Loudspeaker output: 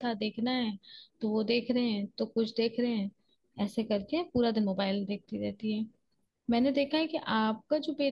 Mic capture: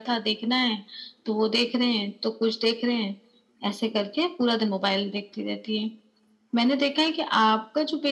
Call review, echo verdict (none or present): present